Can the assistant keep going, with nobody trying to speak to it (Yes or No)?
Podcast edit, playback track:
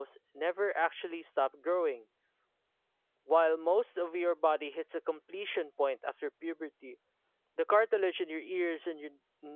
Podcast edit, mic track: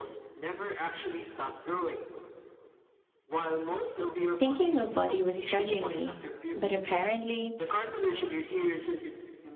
No